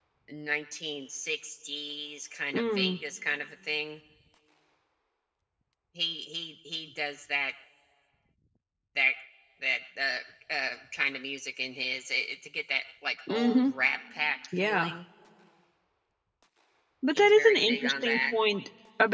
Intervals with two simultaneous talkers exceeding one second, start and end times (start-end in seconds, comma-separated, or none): 17.1-18.3